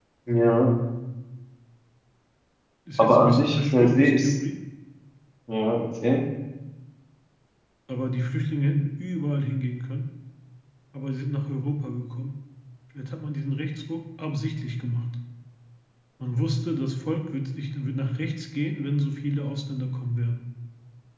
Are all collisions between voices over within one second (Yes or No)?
No